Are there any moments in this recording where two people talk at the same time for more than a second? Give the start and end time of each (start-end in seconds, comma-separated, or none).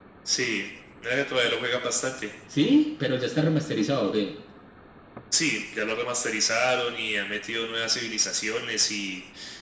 none